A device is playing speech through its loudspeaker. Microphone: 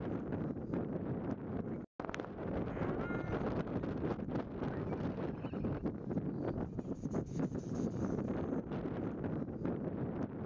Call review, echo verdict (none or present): none